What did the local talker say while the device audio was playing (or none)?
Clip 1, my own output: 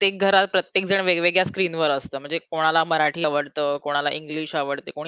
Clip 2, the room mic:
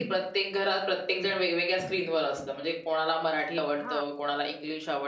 हां.